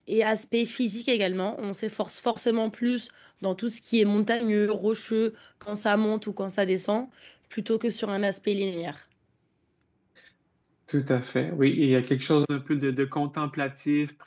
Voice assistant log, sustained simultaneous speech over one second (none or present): none